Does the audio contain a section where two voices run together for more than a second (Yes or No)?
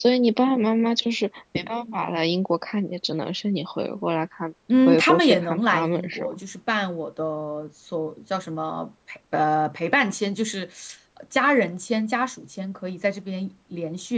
Yes